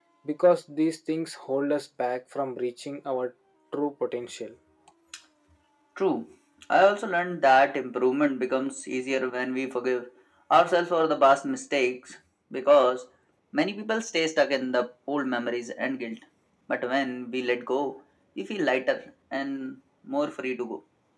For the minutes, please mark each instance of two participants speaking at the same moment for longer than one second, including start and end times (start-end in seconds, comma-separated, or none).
none